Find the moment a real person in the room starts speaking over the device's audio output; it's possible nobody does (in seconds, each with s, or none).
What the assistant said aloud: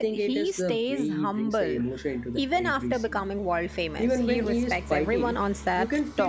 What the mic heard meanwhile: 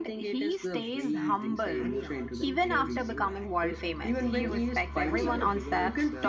0.8 s